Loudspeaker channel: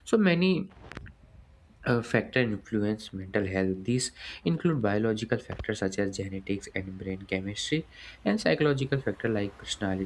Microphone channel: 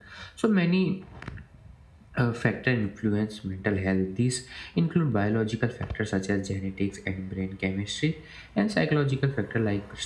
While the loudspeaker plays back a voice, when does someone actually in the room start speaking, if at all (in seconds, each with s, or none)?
none